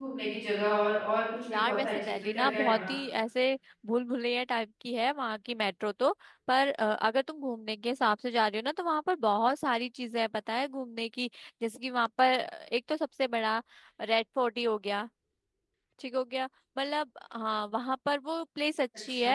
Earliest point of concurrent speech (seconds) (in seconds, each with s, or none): 1.5 s